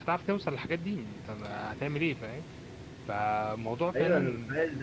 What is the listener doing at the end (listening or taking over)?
taking over